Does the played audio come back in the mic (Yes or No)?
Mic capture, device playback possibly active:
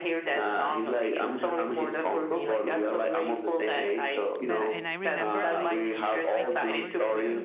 Yes